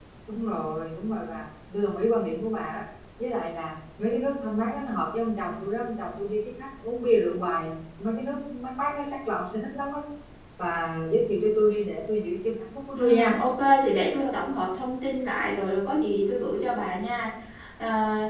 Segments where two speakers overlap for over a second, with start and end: none

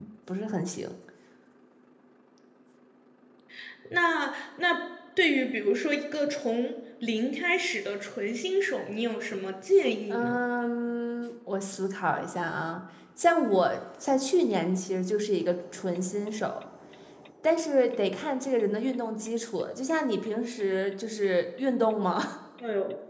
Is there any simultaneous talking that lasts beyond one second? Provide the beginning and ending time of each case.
none

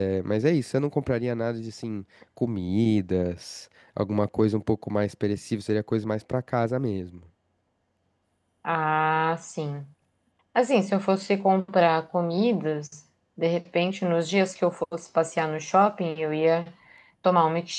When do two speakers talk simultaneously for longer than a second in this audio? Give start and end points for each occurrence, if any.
none

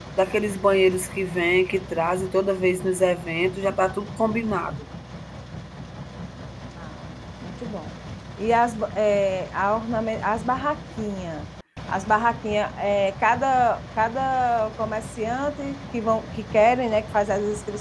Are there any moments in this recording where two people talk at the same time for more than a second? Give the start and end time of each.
none

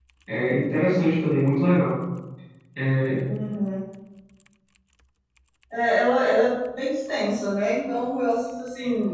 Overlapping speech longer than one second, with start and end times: none

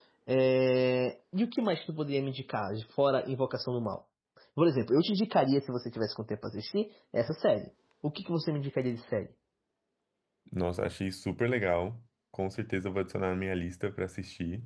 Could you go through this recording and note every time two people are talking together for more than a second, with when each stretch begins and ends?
none

